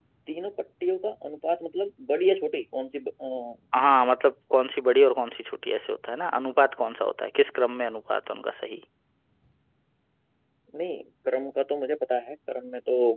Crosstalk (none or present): none